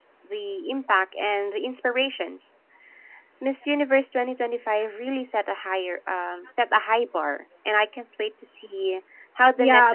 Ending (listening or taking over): taking over